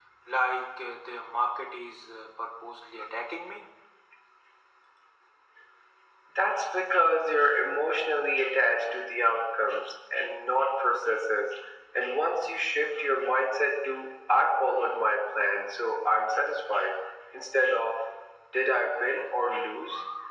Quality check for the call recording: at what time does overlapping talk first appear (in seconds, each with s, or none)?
none